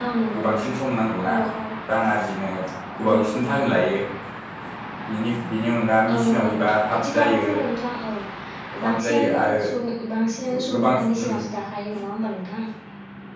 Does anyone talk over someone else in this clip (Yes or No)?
Yes